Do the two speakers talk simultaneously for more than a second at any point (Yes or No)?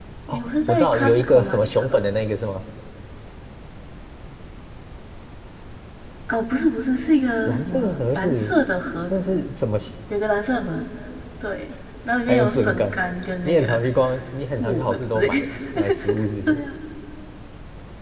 Yes